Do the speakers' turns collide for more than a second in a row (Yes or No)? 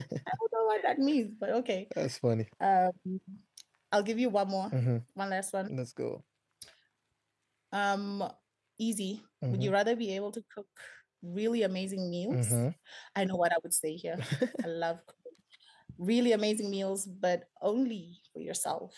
No